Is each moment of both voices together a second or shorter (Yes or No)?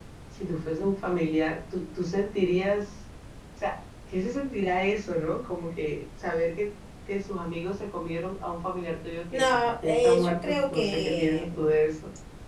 No